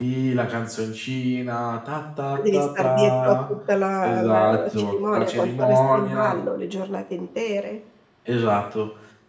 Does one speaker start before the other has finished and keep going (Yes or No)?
Yes